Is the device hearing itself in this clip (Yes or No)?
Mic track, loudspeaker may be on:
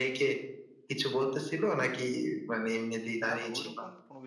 Yes